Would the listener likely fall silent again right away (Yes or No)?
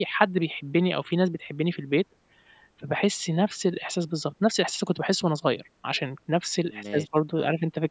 Yes